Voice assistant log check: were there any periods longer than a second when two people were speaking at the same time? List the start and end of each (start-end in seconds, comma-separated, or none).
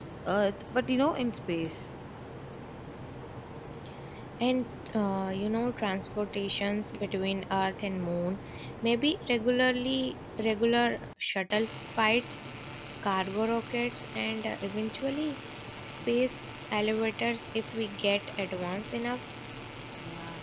none